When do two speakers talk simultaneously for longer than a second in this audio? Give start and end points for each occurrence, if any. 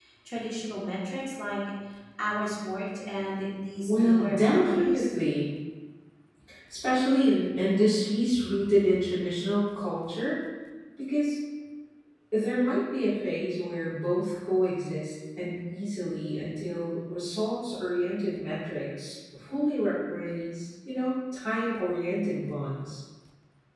3.9-5.1

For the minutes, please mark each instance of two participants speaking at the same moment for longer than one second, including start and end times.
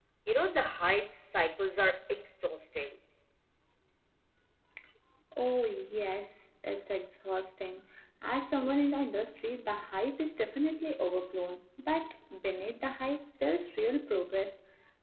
none

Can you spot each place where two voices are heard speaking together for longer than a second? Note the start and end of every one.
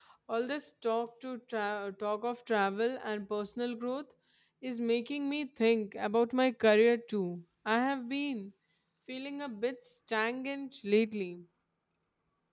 none

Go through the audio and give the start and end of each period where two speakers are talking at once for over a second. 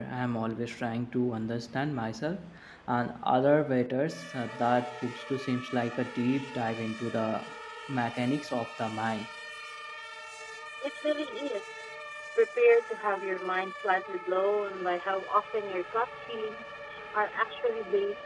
none

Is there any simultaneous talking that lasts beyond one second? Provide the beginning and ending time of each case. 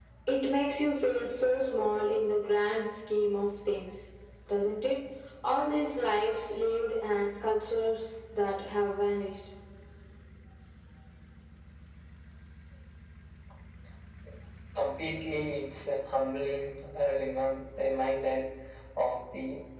none

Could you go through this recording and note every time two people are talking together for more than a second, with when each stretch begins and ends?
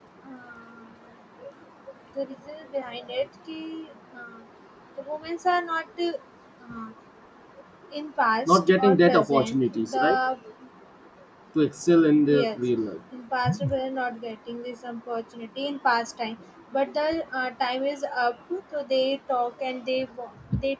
8.5-10.2

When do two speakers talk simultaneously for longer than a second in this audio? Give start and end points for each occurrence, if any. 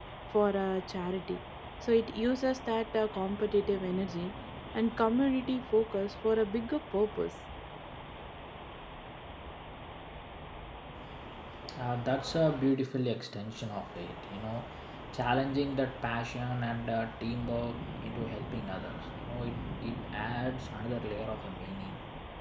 none

